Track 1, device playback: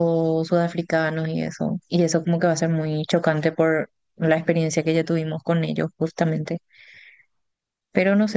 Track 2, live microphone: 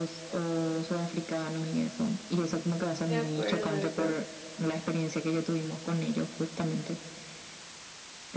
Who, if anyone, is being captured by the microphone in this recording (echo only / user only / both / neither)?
both